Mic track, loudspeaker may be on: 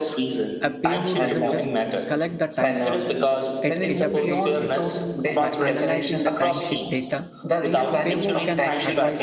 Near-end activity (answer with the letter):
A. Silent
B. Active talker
B